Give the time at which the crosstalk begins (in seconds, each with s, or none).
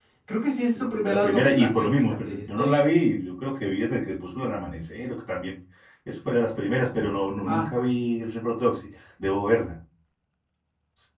0.8 s